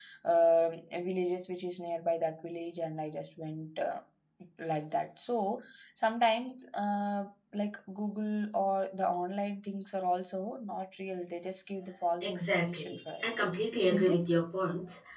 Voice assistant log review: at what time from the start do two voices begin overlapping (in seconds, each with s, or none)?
12.2 s